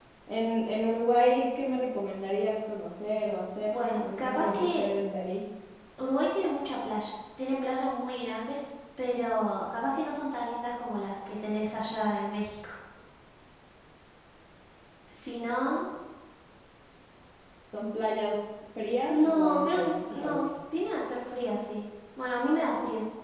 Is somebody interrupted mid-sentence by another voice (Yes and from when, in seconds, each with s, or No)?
Yes, from 3.7 s